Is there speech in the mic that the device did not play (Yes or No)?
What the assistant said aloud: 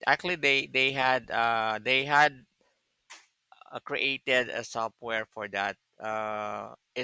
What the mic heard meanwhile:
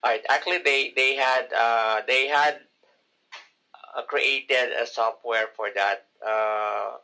No